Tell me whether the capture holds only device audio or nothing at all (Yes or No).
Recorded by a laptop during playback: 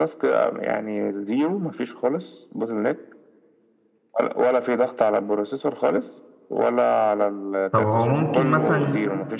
No